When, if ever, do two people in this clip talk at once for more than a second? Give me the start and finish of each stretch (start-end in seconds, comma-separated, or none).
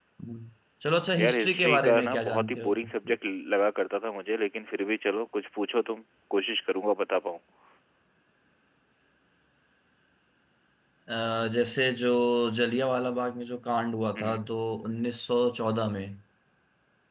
1.2-2.9